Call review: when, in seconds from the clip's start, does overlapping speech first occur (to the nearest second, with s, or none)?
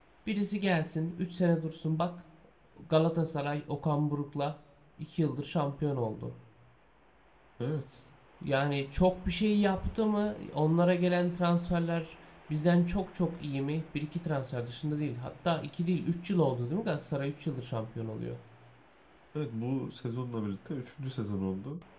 none